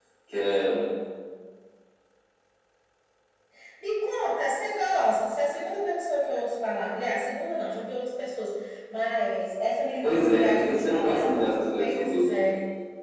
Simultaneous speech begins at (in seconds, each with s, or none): 10.0 s